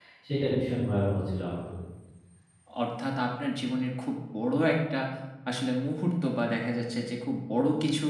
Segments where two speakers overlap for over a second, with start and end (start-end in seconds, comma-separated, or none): none